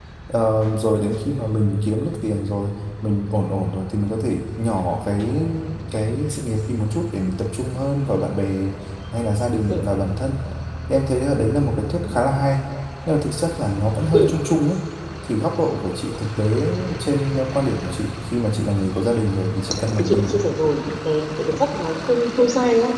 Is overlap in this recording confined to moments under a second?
Yes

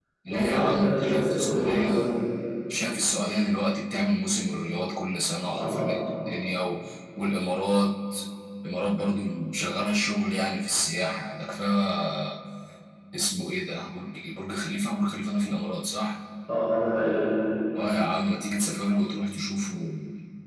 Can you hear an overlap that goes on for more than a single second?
Yes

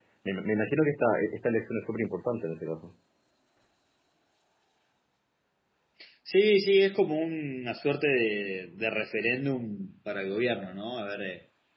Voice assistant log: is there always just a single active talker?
Yes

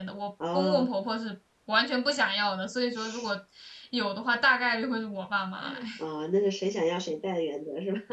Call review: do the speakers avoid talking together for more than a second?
Yes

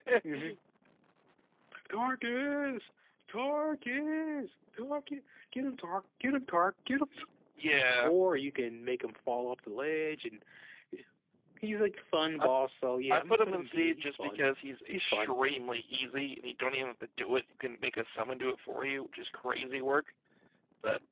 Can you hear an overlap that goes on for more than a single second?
Yes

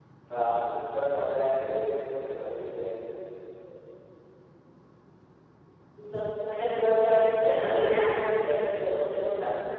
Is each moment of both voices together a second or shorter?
Yes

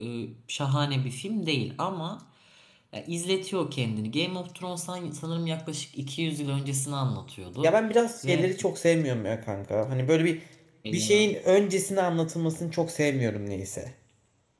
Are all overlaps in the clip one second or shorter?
Yes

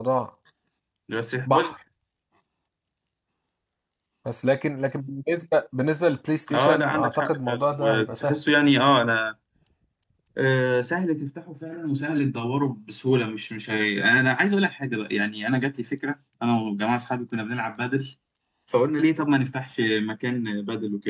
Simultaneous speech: Yes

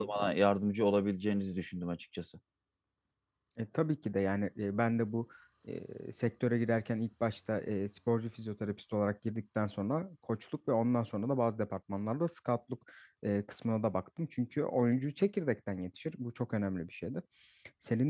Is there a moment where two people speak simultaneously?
No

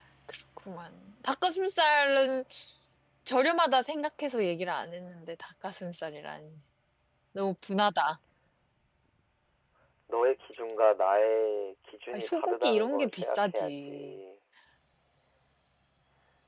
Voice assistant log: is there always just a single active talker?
No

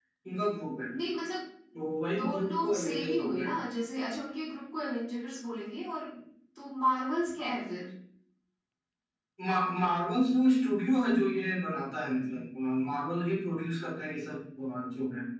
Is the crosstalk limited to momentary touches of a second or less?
No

